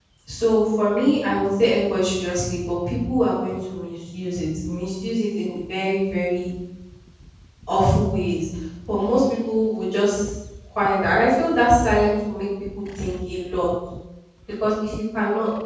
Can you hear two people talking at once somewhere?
No

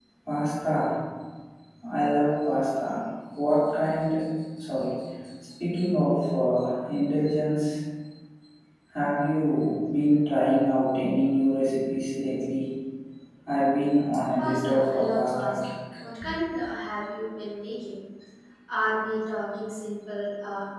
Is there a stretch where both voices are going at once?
Yes, from 14.4 s

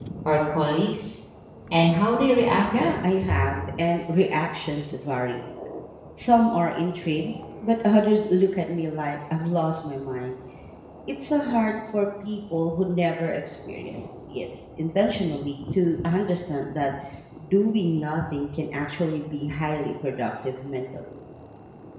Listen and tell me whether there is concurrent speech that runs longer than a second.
No

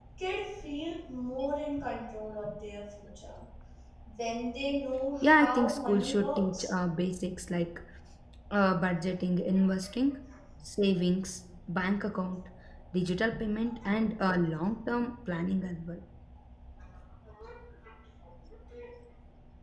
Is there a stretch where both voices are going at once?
Yes, from 5.2 s

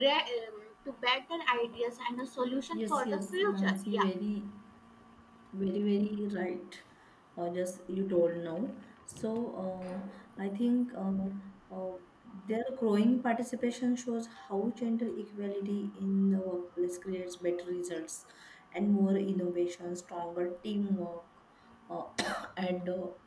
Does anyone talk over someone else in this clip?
Yes, from 2.7 s

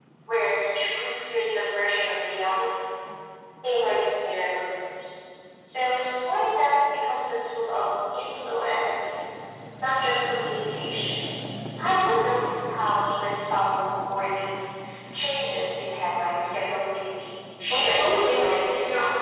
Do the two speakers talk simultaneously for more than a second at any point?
Yes, from 17.7 s

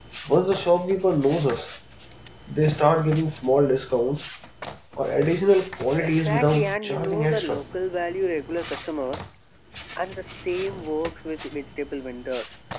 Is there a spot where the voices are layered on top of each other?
Yes, from 6.0 s

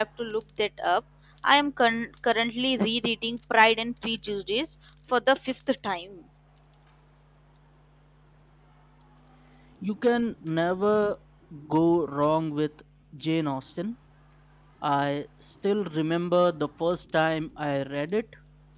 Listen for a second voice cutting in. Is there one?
No

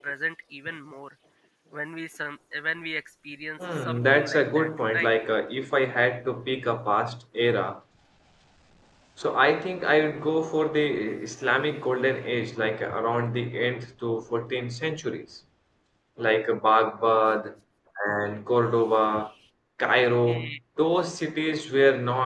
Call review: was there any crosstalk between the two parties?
Yes, from 3.8 s

